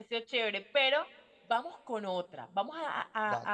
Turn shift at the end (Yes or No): No